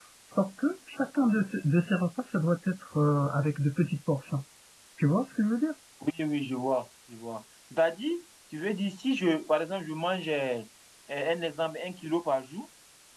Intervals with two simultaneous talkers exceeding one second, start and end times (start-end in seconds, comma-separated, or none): none